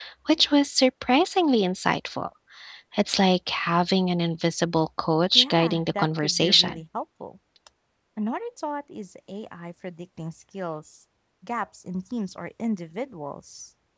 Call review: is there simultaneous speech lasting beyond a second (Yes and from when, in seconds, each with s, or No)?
Yes, from 5.3 s